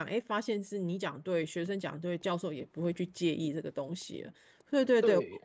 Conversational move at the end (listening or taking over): taking over